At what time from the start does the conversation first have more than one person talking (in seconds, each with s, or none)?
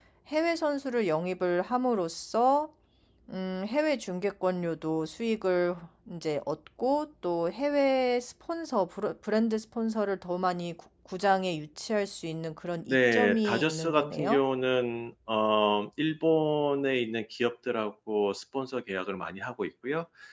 12.9 s